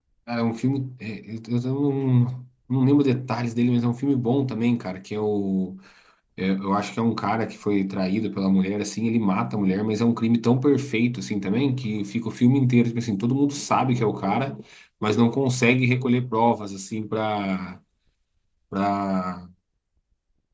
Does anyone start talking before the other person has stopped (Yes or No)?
No